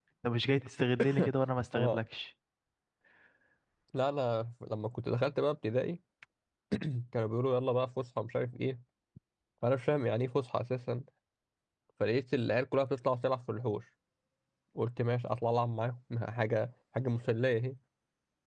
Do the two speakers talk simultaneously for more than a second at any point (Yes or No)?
No